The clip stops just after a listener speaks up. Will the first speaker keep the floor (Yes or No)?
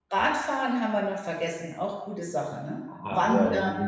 No